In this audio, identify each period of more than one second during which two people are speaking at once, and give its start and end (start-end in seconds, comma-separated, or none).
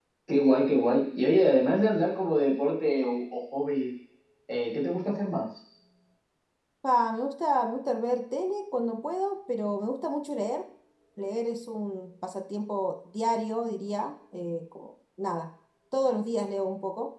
none